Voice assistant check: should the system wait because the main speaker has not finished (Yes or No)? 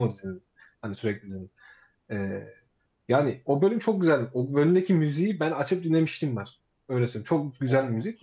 Yes